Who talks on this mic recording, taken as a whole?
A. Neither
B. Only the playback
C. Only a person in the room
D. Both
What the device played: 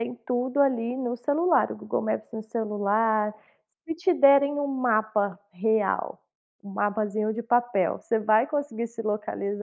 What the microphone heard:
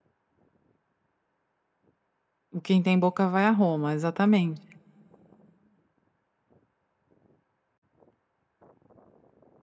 C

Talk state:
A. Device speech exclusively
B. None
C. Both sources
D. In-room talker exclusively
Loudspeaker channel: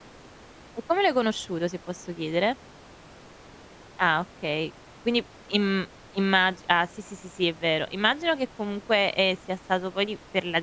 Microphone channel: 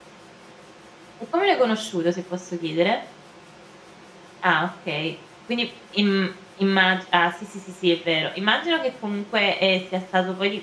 A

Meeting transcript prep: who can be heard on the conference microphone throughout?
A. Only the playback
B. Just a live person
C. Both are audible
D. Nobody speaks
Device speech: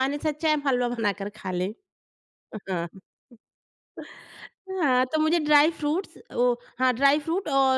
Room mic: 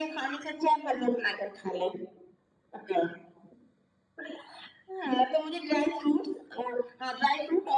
A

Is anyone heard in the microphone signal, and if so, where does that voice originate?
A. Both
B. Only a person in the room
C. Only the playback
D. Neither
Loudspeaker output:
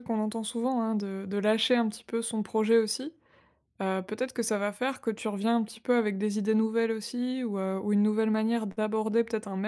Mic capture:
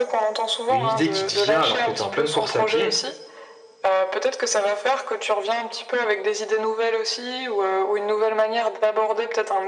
A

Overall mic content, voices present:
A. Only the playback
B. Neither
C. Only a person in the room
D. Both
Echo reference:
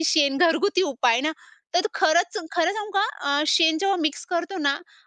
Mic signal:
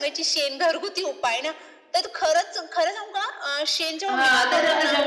D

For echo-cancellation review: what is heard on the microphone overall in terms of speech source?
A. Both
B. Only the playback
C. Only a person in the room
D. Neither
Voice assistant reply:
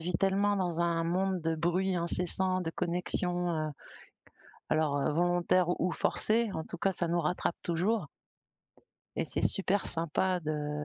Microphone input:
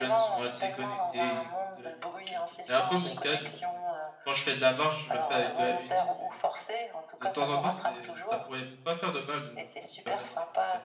A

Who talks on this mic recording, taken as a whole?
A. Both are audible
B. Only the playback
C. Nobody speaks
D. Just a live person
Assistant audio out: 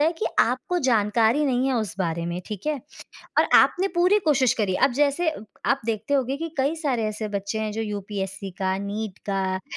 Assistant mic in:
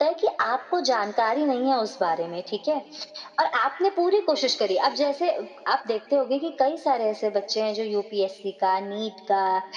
B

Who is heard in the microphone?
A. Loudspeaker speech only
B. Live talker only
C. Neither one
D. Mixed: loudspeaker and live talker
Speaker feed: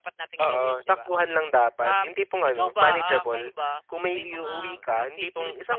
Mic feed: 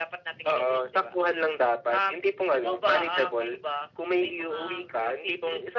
A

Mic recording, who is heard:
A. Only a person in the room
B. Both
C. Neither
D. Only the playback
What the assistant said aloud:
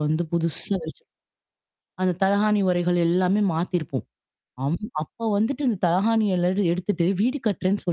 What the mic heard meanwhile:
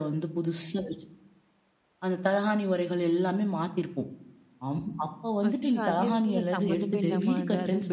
B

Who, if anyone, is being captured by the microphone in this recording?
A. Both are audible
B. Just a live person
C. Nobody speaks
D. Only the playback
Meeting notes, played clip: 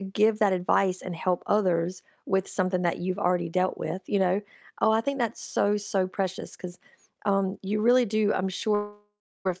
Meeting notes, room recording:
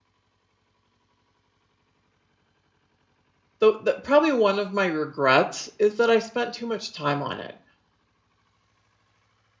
B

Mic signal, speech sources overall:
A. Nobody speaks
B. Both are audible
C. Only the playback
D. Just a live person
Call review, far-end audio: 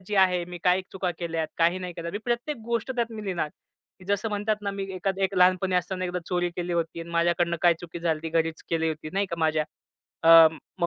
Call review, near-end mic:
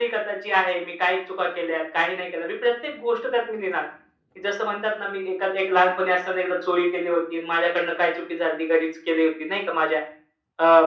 C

